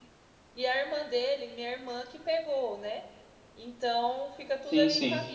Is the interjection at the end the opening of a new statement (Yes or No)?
No